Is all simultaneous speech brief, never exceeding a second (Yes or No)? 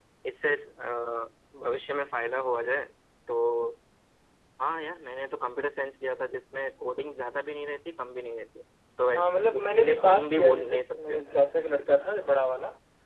No